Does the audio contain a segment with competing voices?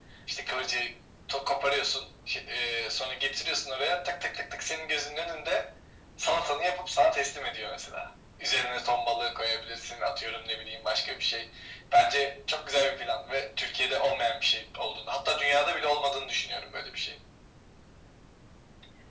No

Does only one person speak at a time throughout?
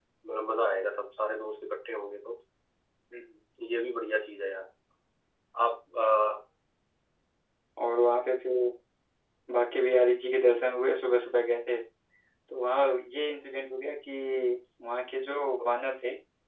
Yes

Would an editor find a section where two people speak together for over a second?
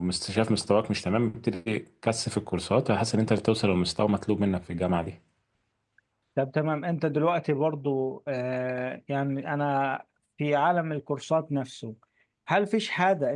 No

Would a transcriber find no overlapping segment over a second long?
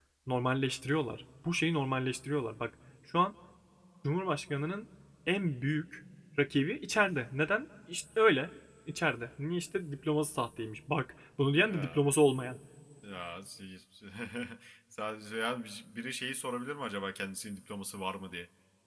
Yes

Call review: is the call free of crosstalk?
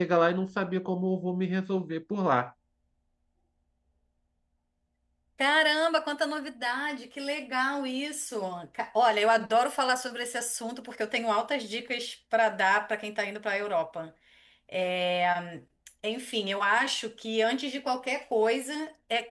Yes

